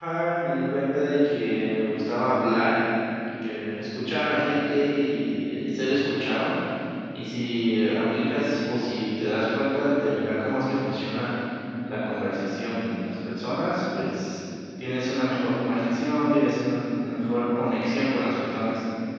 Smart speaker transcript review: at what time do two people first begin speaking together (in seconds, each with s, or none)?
none